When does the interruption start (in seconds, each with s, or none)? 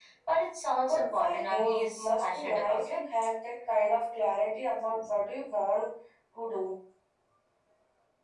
0.8 s